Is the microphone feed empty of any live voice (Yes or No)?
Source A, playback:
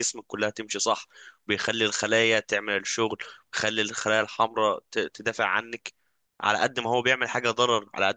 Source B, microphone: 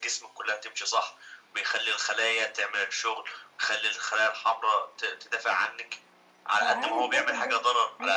No